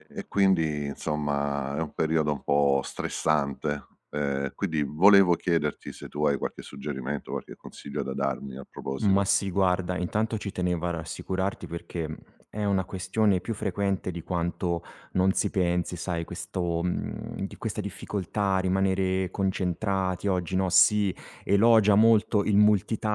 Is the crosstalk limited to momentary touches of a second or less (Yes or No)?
Yes